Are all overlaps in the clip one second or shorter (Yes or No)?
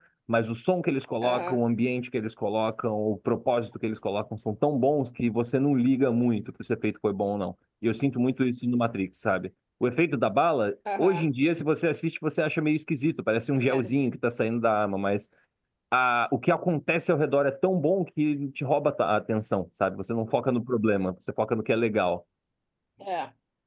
Yes